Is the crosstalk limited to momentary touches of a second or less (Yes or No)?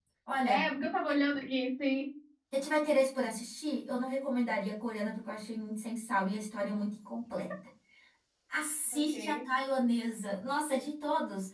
Yes